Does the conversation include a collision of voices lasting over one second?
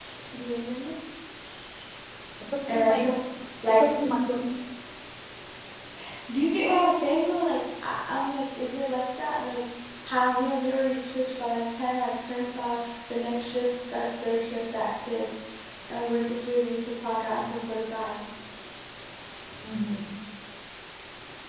No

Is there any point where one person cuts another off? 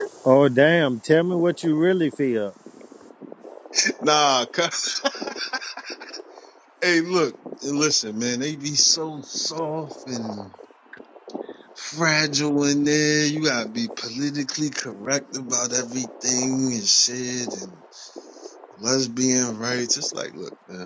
No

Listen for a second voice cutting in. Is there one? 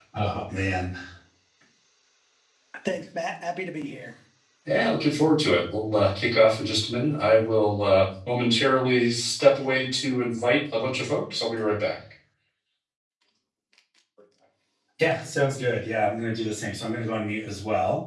No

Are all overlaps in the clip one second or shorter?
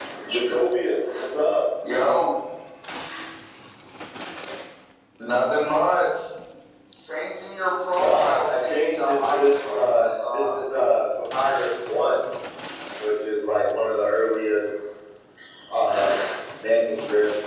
No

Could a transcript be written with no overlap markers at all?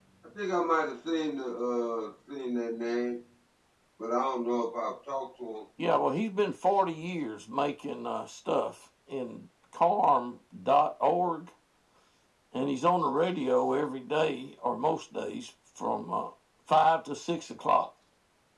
Yes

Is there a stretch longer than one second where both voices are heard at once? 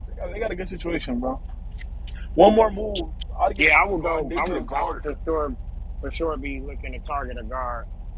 Yes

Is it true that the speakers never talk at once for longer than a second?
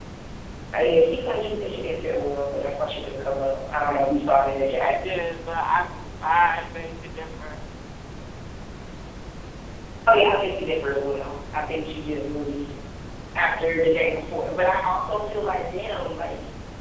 Yes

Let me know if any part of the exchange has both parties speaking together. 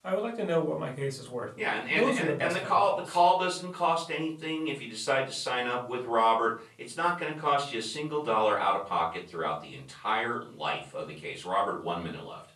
Yes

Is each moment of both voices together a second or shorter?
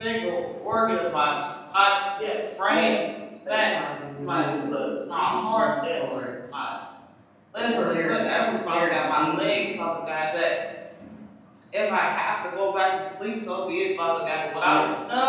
No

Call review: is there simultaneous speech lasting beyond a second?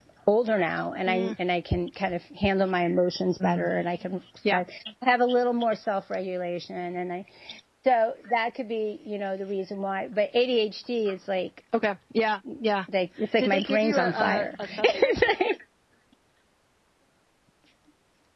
Yes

